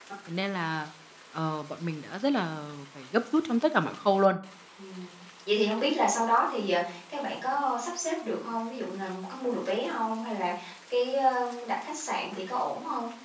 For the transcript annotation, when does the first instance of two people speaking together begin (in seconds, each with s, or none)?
none